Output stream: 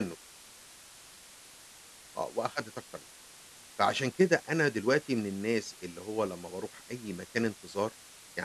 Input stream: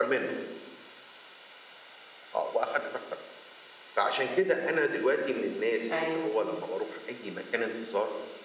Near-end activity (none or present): present